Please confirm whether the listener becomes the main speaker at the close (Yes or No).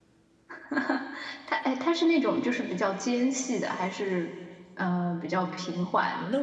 Yes